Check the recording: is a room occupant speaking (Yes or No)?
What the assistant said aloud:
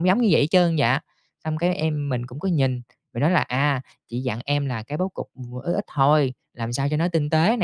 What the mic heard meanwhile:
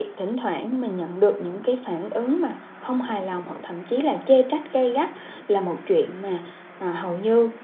Yes